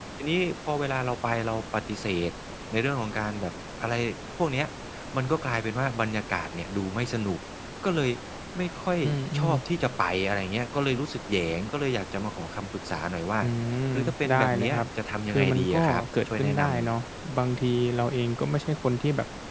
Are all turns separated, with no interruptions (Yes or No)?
No